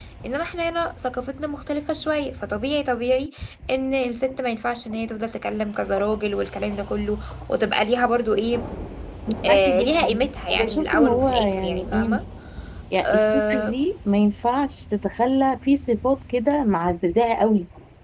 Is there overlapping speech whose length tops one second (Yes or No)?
Yes